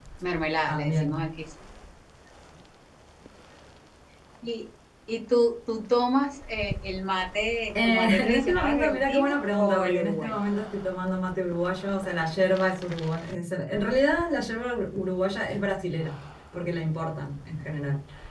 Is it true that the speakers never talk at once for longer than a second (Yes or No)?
No